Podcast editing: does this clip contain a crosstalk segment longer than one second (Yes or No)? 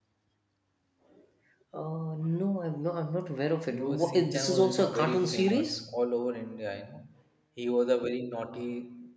Yes